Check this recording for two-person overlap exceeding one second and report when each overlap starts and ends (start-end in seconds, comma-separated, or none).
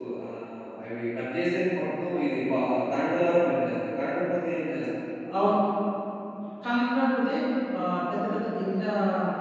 none